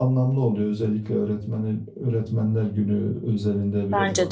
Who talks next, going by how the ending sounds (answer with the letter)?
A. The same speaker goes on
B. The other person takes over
A